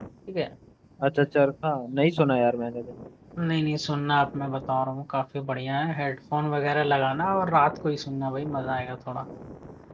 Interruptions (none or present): none